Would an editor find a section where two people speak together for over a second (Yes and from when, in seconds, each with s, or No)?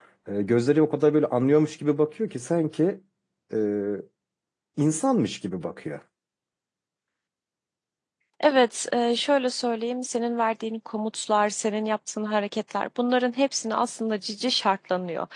No